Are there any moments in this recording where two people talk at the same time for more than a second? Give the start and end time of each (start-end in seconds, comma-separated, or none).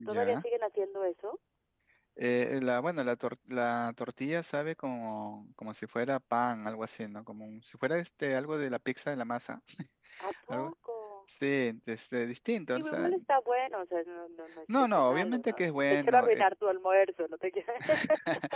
14.9-16.4